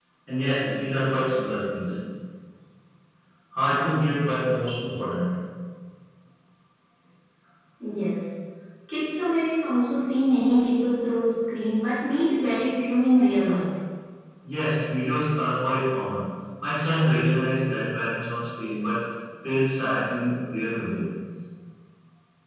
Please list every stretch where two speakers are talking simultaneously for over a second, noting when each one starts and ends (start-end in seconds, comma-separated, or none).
none